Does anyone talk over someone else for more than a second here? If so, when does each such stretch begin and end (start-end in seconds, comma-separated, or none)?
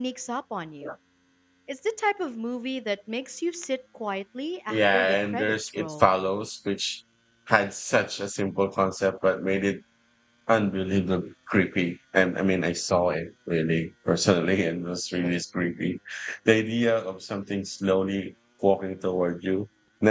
4.7-6.1